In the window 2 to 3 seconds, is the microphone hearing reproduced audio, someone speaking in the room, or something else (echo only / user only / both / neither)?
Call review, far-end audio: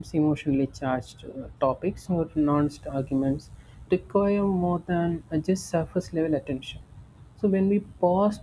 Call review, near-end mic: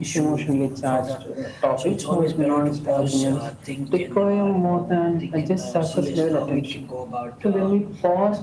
both